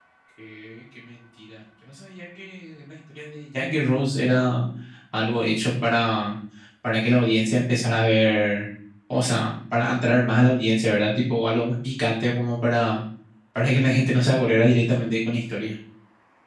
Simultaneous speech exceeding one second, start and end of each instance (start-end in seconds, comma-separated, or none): none